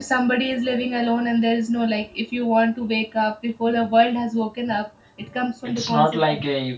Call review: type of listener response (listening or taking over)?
taking over